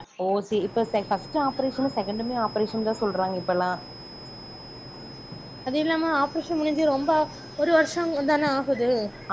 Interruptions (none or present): none